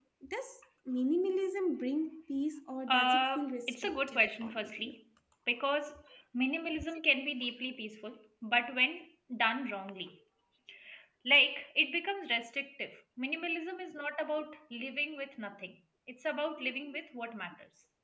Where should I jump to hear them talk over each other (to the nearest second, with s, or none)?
3 s